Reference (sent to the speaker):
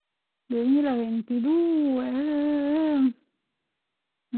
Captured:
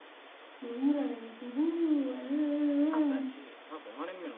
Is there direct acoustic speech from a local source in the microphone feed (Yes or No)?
Yes